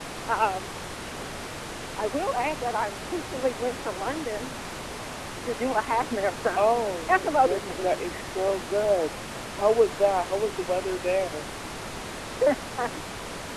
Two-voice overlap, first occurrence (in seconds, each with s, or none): 6.6 s